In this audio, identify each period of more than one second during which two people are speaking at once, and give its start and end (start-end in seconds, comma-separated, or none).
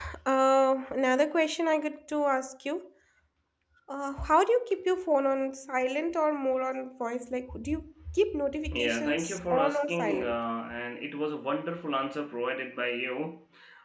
8.7-10.4